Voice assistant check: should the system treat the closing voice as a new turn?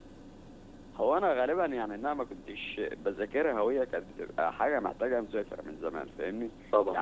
No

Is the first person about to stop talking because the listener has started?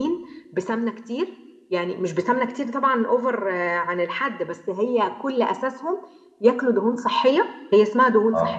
No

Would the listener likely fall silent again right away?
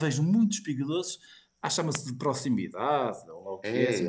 No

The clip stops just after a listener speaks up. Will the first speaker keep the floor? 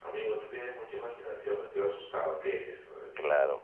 No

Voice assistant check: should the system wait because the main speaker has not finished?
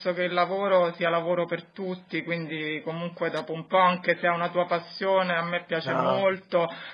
Yes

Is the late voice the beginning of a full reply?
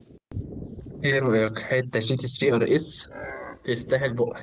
Yes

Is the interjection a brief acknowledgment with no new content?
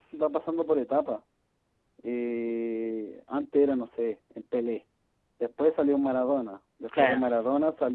Yes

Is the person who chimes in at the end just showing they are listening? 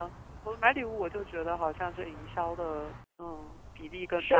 No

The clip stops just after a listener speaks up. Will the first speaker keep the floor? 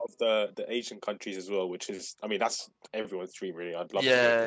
No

